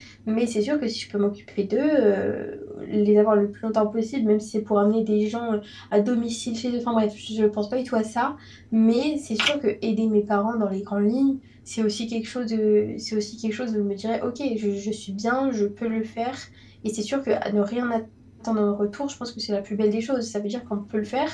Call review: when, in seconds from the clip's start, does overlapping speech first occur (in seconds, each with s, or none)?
none